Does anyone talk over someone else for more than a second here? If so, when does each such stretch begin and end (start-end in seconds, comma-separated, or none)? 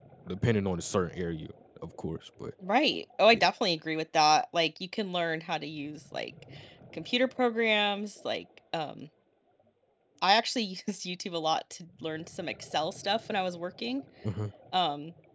none